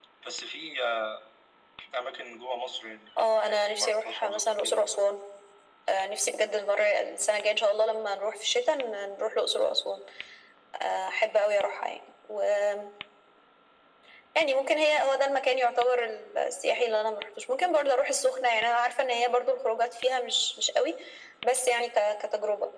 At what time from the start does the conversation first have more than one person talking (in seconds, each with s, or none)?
3.4 s